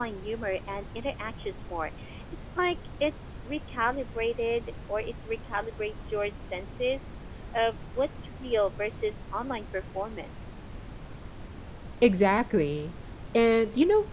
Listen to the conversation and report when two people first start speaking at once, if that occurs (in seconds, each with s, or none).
none